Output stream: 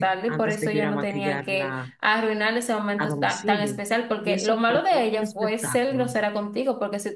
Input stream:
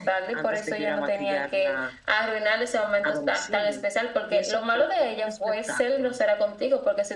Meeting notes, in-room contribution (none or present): none